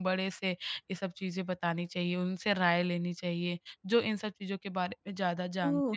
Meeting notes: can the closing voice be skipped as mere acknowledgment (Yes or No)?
No